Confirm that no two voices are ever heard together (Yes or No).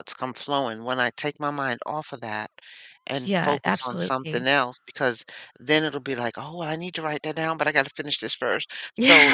No